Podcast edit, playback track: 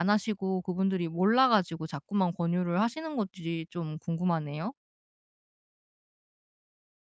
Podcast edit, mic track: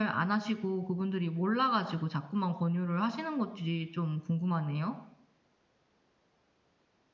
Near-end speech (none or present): none